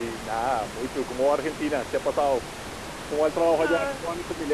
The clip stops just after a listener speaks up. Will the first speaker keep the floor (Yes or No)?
No